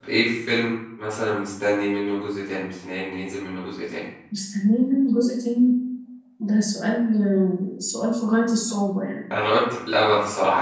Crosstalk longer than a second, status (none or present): none